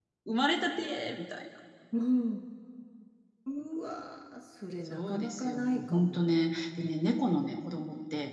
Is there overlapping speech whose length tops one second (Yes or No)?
Yes